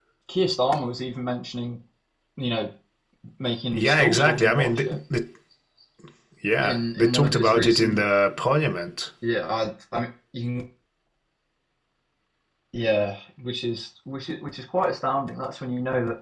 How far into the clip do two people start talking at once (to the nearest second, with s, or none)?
4 s